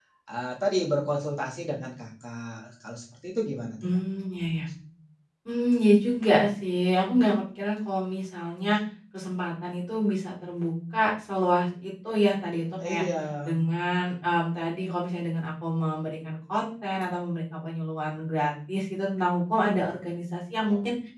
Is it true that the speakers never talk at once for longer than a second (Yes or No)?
Yes